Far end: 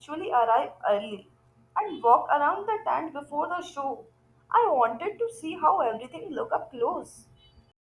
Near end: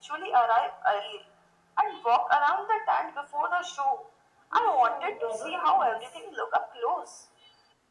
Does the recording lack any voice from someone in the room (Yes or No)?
No